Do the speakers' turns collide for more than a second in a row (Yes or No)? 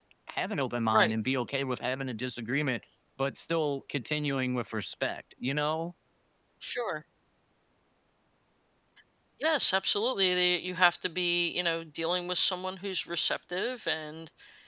No